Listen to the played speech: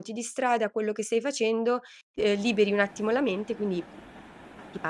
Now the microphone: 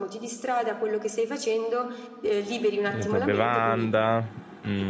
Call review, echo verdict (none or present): present